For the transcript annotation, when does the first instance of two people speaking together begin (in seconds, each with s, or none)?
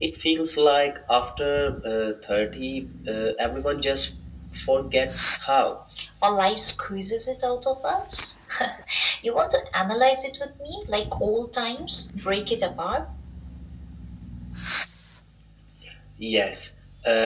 none